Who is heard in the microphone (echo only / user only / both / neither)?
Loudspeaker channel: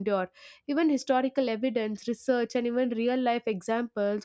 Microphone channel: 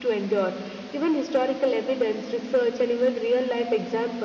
echo only